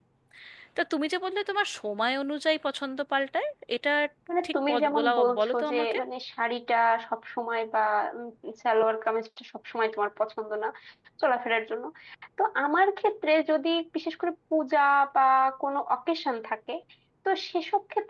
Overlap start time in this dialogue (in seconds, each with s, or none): 4.5 s